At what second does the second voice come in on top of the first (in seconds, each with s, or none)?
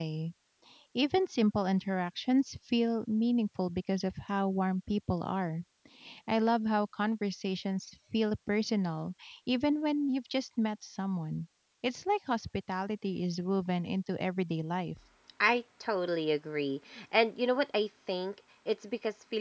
none